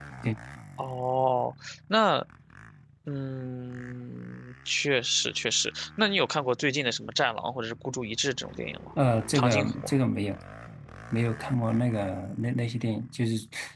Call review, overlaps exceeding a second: none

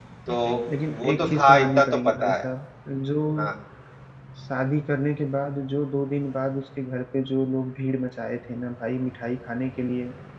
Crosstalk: present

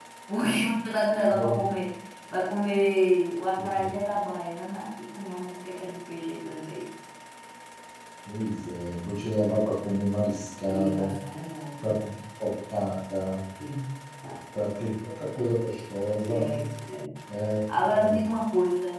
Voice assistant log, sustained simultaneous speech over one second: none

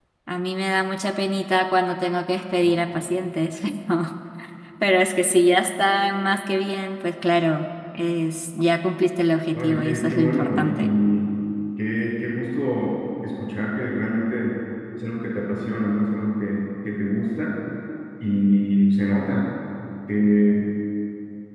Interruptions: present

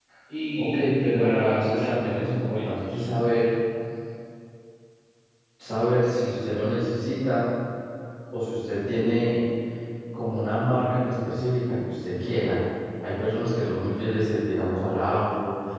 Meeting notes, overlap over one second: present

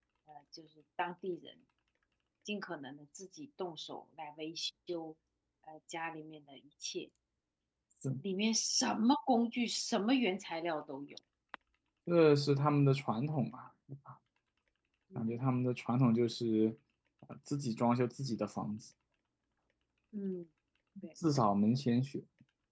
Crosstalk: none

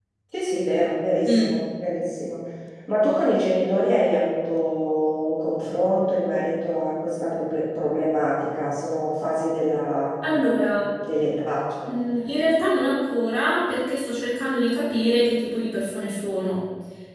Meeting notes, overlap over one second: none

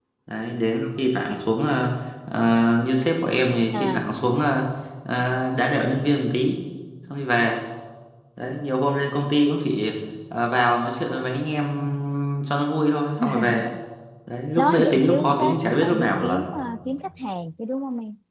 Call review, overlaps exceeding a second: present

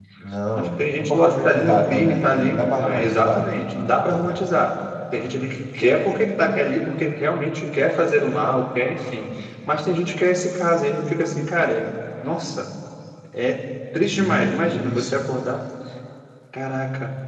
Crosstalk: present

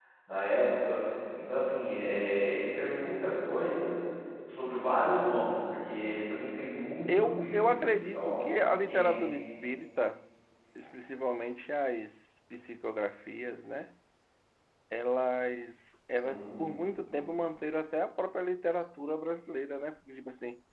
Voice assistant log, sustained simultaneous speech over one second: present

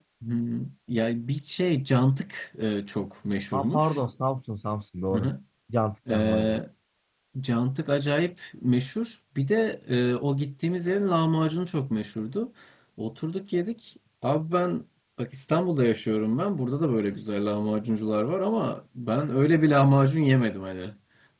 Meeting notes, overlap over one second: none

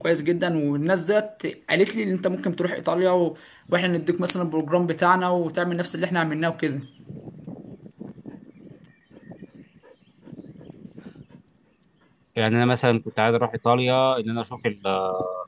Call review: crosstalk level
none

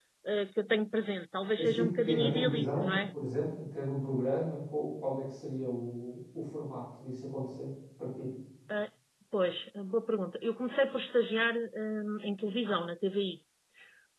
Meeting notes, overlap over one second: present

